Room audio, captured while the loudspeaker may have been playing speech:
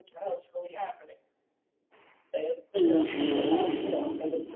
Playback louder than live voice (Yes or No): No